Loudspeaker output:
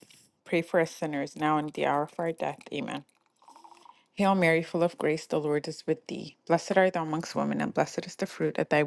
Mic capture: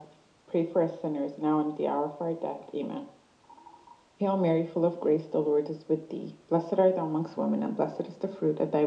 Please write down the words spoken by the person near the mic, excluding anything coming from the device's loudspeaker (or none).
none